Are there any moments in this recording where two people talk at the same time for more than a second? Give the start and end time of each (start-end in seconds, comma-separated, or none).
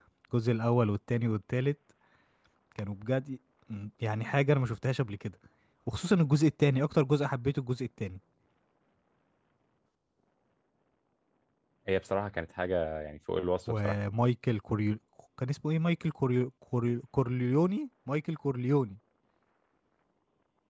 none